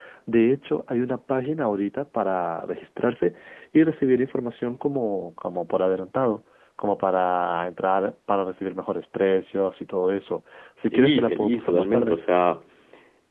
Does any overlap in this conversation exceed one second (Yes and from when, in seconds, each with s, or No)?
Yes, from 10.8 s